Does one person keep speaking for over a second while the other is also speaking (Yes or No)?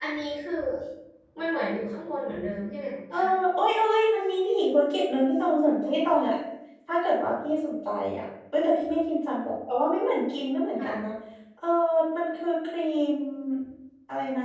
No